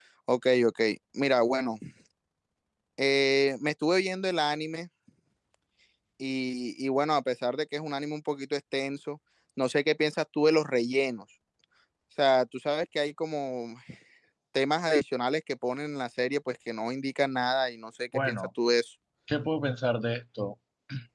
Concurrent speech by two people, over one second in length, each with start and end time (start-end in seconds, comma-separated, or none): none